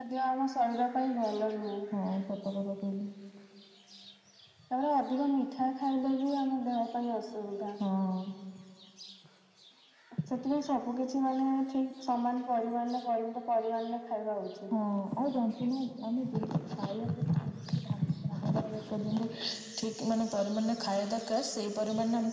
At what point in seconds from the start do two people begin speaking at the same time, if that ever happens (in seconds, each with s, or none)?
none